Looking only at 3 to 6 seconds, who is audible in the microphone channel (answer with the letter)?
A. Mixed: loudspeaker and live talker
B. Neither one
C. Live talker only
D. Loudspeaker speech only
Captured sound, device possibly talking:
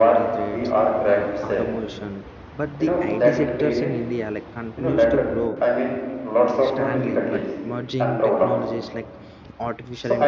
A